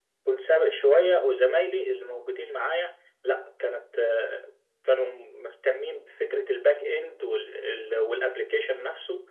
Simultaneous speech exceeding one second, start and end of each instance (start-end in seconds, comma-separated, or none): none